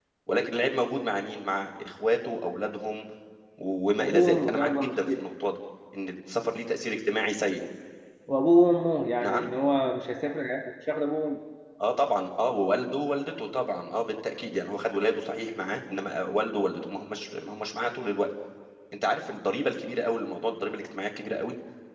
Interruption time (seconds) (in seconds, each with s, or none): 4.0 s